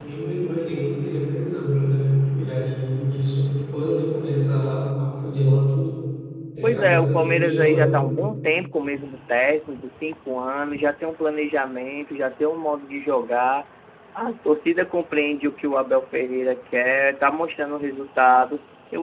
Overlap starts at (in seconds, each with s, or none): 6.6 s